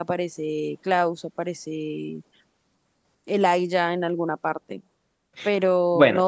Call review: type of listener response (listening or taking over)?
listening